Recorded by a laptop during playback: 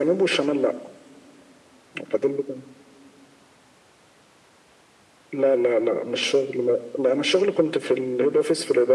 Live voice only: none

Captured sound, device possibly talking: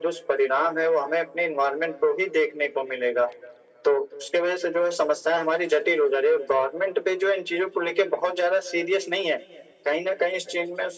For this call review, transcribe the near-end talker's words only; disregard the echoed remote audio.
none

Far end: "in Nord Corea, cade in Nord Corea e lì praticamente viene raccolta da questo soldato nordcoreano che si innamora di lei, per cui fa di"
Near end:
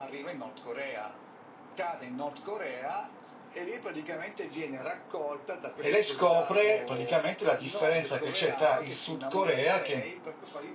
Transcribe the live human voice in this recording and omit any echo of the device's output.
e lei scopre praticamente la differenza che c'è tra il Sud Corea, che

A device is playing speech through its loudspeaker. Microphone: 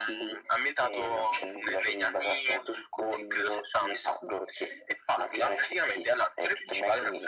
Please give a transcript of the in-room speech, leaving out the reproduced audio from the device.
none

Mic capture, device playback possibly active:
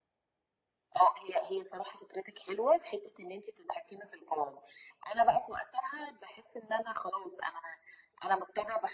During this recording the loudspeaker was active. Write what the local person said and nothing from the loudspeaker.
none

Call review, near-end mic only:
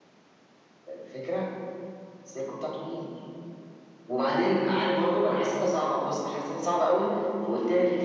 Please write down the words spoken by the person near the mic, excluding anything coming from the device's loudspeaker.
none

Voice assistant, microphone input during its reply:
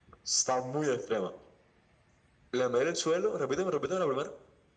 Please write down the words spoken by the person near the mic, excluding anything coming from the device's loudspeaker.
none

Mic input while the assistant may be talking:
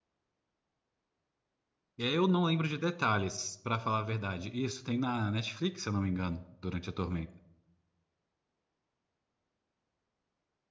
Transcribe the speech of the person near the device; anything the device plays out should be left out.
E eu não lembro de detalhes, pra falar a verdade. Isso tem na Netflix, se eu não me engano, Durante a Tormenta.

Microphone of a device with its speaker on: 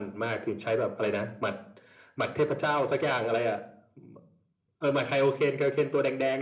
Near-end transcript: none

